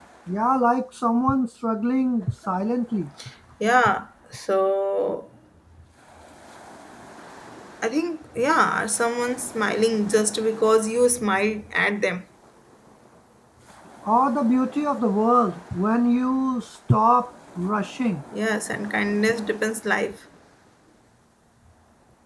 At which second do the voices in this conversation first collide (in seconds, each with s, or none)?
none